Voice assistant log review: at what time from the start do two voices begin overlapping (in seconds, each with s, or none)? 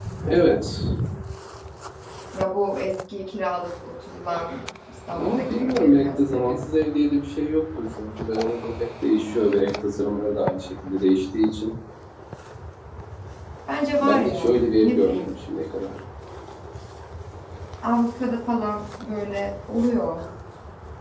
5.2 s